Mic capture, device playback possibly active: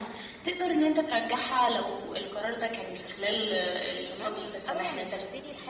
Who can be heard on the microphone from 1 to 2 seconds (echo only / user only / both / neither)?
echo only